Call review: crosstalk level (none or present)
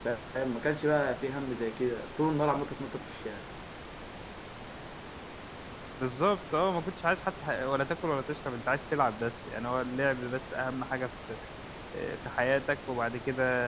none